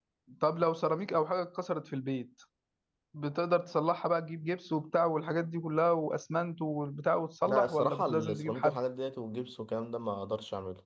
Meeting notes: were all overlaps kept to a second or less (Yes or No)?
No